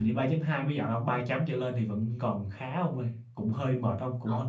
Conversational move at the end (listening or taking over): listening